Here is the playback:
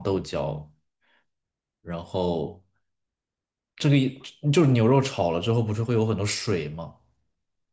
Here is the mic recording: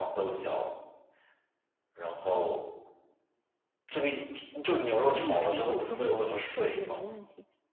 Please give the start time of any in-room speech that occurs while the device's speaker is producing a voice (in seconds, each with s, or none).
5.1 s